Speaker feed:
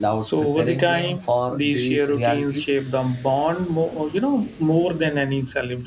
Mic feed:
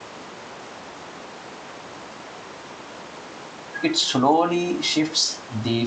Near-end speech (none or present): present